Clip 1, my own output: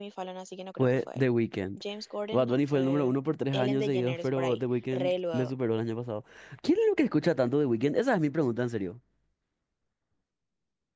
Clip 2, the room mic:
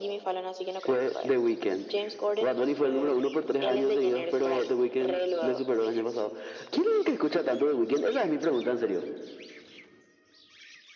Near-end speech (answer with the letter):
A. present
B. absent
B